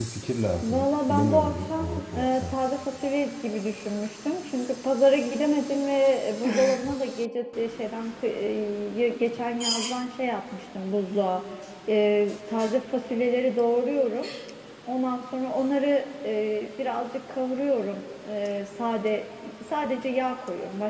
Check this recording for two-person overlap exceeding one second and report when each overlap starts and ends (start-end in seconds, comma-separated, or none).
0.6-2.5